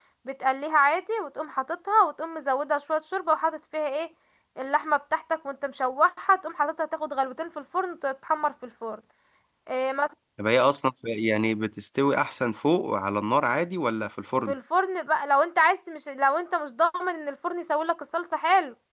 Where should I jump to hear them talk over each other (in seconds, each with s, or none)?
none